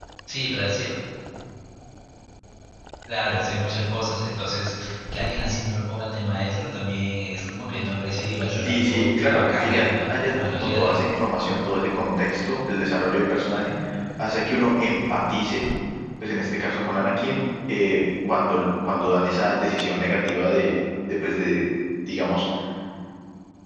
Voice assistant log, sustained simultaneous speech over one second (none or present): present